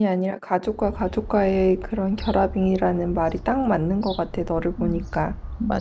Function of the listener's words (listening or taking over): taking over